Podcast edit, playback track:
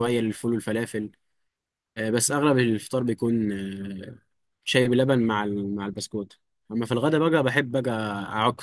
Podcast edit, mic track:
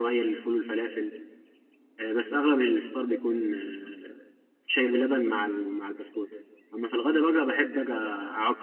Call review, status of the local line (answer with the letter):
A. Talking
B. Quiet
B